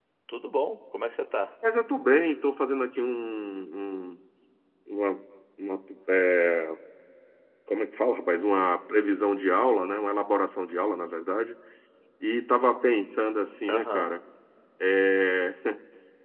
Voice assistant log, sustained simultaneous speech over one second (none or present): none